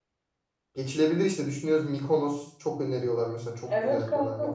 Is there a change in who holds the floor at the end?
Yes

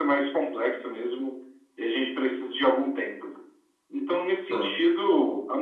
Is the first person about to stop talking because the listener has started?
No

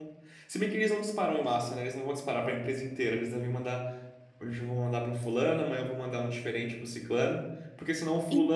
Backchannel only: Yes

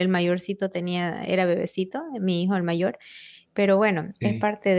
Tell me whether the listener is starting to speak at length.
No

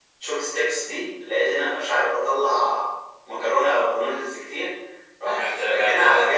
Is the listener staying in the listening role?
Yes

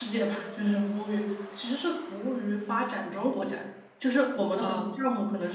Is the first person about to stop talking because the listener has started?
No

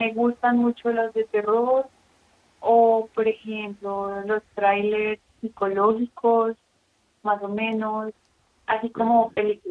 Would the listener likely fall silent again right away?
Yes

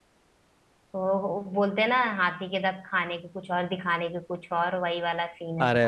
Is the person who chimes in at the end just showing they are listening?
No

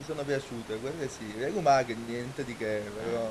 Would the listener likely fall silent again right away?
Yes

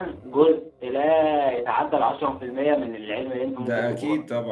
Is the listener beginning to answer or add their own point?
Yes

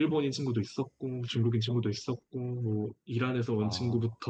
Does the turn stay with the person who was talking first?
Yes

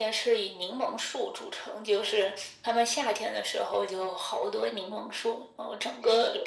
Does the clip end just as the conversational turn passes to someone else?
No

